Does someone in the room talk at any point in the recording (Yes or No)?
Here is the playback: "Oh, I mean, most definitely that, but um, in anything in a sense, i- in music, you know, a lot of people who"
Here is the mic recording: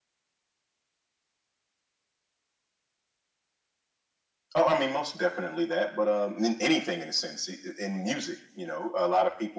No